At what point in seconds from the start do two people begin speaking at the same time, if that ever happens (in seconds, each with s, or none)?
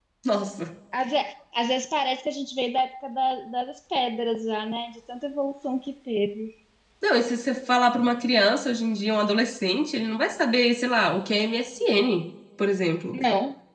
none